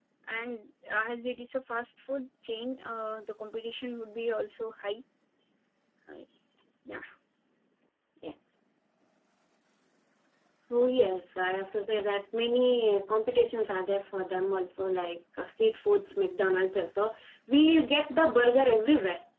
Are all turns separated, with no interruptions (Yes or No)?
Yes